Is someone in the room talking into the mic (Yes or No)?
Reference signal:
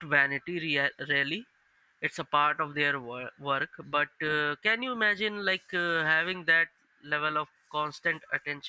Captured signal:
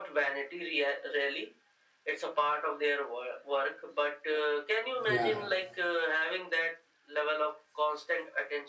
Yes